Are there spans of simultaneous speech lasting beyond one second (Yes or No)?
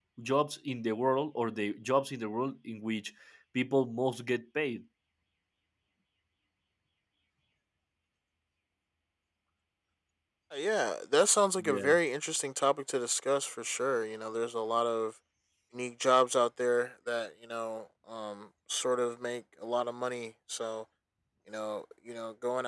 No